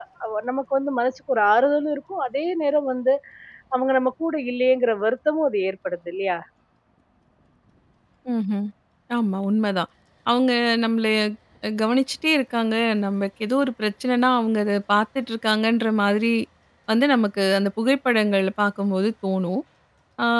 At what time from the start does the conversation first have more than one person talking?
none

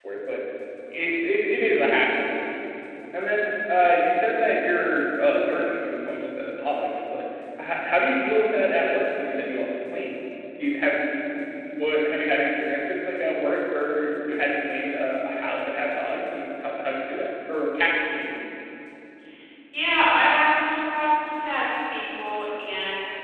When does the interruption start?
none

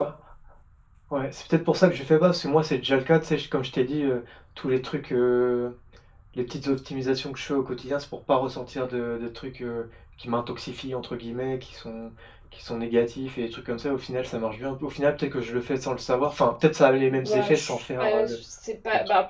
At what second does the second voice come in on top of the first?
17 s

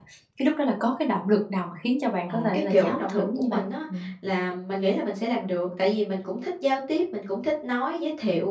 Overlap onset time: 2 s

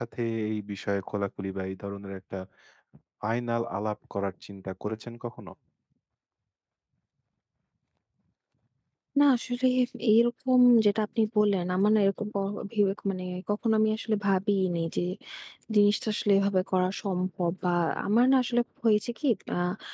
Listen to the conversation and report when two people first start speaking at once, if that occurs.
none

